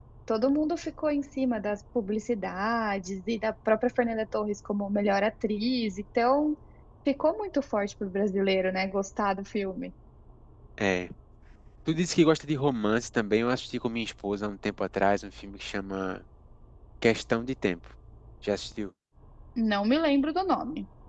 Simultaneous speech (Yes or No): No